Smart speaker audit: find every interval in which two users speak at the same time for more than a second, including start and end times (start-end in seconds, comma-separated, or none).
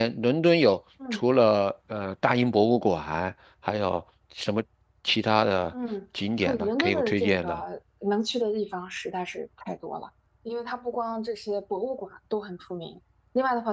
6.4-7.6